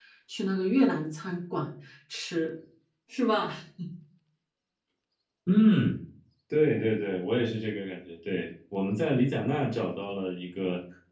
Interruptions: none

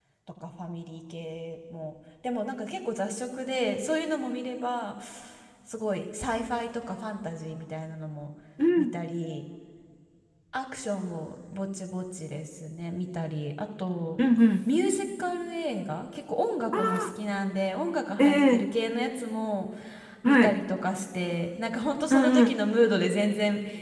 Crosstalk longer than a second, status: none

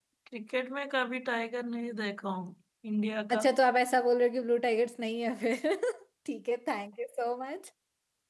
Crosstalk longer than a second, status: none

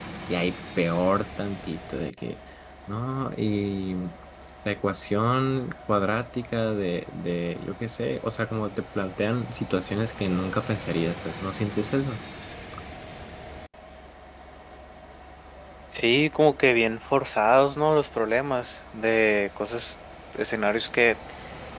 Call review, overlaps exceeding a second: none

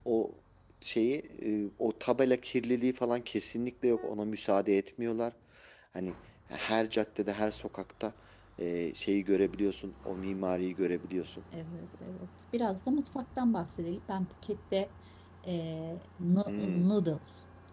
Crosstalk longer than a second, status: none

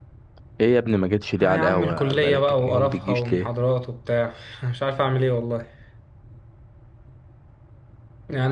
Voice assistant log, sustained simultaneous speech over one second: present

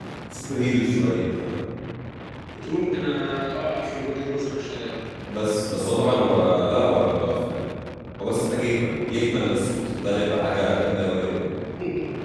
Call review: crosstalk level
none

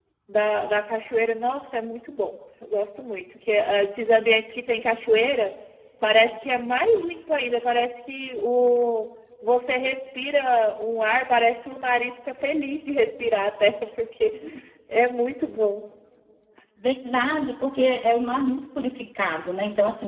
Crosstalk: none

